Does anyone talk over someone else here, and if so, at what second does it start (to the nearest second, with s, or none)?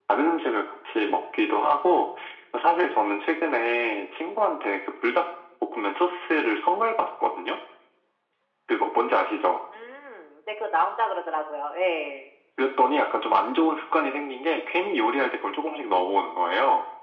none